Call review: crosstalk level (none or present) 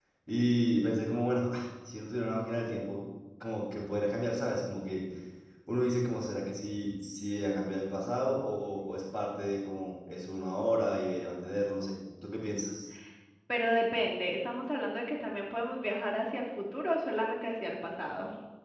none